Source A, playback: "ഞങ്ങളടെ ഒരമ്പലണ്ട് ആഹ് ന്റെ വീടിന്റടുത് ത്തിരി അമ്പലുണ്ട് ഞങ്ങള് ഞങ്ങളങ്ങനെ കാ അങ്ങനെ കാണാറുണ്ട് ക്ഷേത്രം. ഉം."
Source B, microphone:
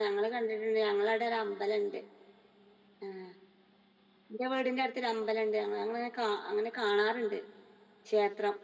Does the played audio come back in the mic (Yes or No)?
Yes